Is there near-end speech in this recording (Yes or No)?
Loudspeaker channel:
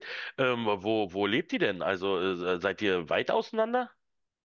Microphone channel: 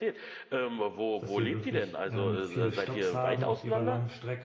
Yes